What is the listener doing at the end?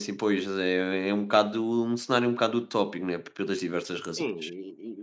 taking over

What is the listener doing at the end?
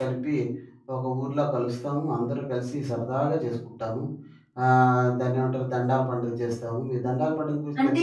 listening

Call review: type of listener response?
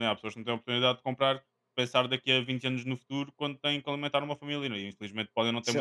taking over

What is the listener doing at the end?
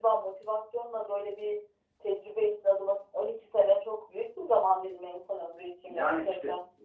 taking over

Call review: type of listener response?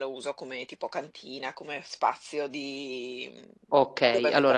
taking over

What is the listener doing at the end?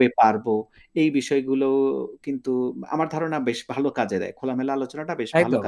taking over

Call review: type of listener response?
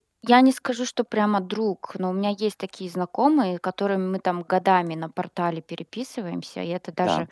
listening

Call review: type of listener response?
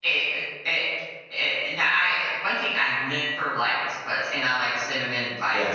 listening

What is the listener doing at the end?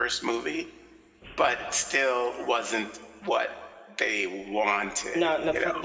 taking over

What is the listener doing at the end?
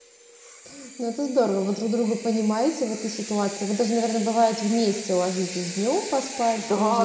taking over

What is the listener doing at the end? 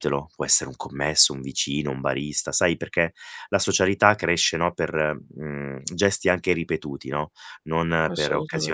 listening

